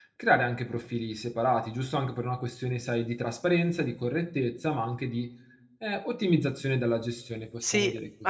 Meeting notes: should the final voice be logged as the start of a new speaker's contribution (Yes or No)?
Yes